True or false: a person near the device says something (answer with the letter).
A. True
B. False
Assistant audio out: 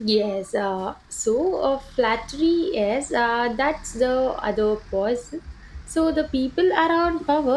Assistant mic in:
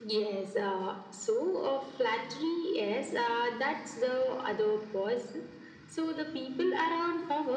B